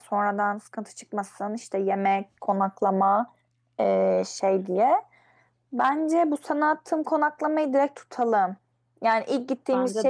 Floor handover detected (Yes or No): No